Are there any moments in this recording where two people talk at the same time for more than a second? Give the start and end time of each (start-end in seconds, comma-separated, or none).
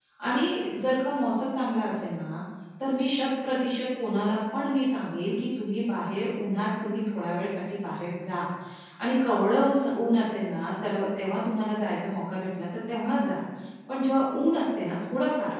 none